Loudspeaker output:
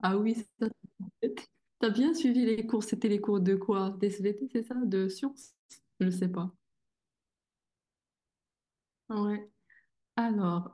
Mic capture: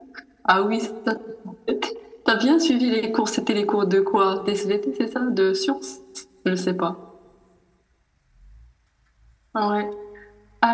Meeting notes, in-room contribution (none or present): none